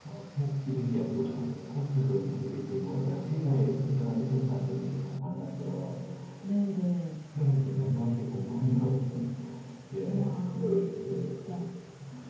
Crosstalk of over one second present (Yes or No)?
Yes